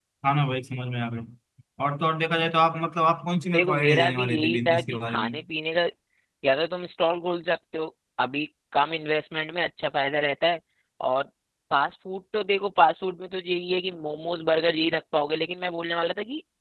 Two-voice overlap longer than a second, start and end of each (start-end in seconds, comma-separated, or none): 3.5-5.4